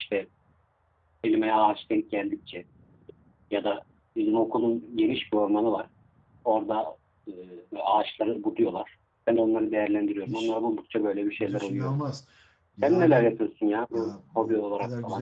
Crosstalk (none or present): present